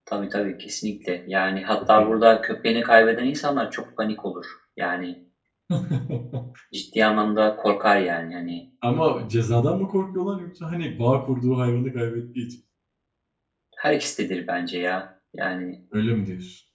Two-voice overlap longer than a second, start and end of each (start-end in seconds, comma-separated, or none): none